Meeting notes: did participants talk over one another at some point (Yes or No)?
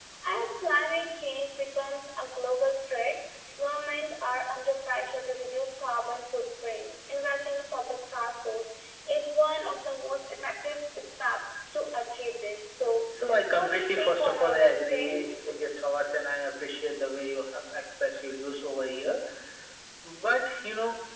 Yes